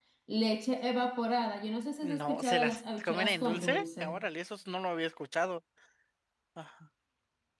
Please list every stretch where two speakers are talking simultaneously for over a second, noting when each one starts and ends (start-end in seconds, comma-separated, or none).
2.0-4.2